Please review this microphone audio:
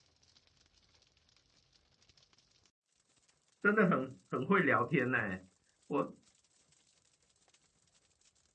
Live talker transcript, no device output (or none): 真的很很会聊天呢。我